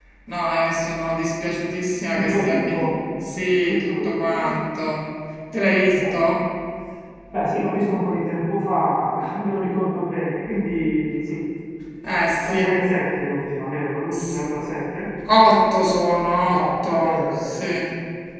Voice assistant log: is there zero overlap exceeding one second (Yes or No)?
No